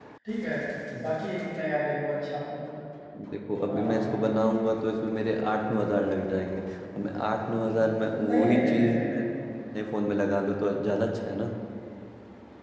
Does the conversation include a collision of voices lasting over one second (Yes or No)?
Yes